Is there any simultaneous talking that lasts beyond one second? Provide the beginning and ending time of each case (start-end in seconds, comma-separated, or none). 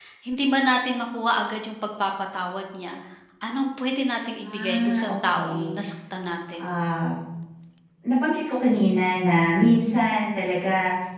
4.4-5.7